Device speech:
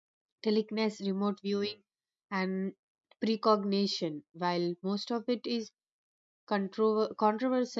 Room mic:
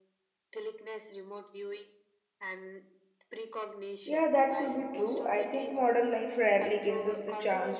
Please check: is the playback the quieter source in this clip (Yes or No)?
Yes